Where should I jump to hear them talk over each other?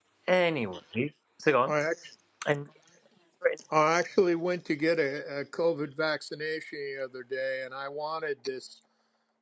none

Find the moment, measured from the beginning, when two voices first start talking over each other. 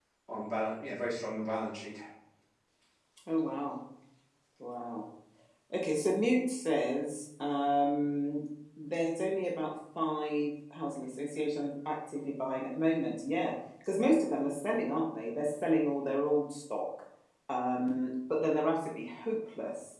none

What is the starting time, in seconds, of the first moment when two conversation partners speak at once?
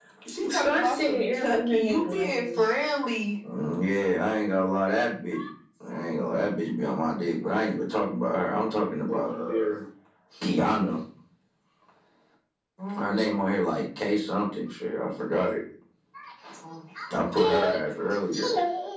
1 s

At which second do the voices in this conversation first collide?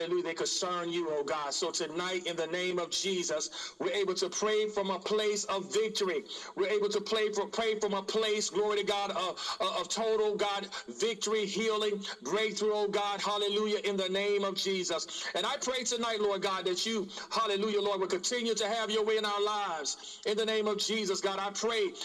none

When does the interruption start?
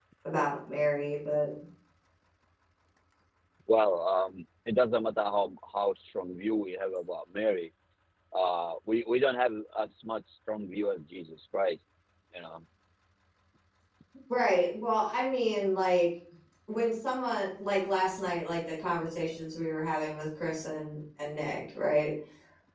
none

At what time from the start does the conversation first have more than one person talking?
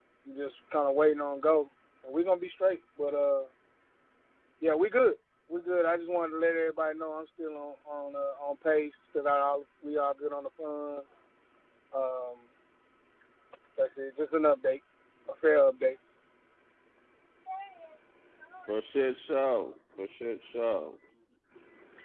none

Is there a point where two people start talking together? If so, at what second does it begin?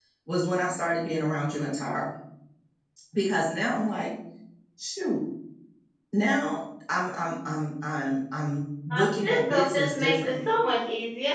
9 s

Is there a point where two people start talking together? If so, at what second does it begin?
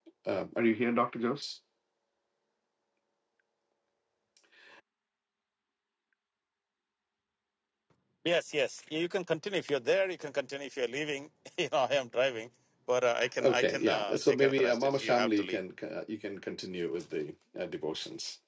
13 s

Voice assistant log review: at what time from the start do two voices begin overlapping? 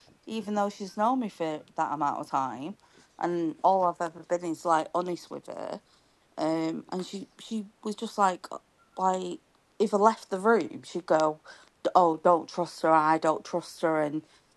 none

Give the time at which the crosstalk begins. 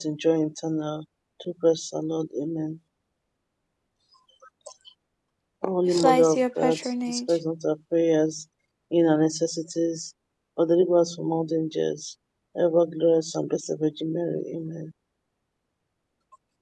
6 s

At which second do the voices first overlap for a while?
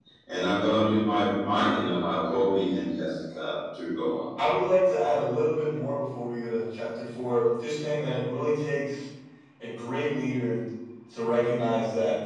none

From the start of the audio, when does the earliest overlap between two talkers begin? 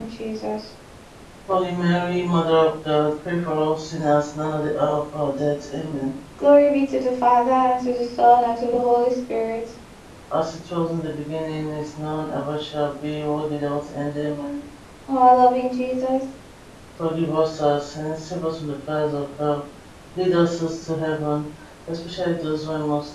none

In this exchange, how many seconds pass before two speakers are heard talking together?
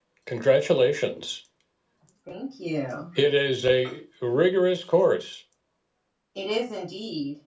none

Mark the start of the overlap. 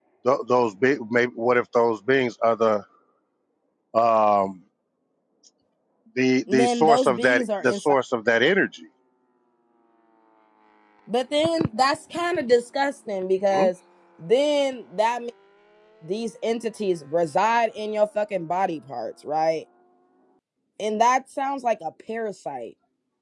6 s

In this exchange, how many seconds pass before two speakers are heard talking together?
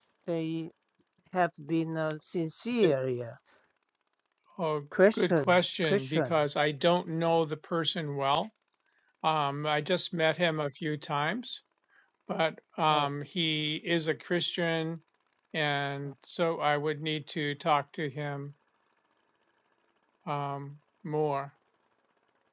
5 s

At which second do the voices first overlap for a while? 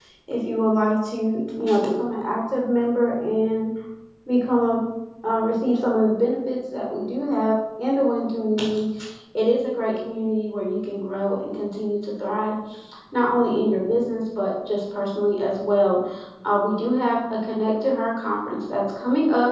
none

